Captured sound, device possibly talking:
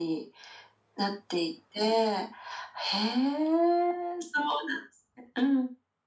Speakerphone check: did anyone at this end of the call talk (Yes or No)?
No